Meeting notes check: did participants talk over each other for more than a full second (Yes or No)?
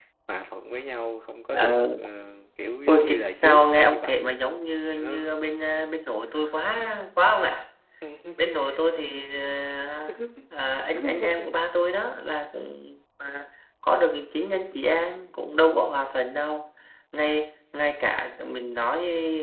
Yes